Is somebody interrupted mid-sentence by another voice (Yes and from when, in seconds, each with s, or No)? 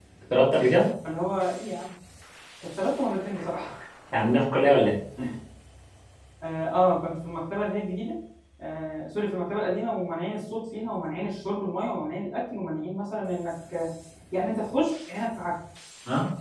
No